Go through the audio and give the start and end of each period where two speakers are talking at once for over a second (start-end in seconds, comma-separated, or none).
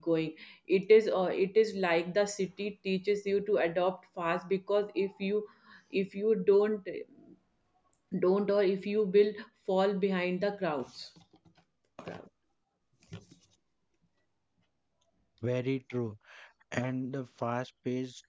none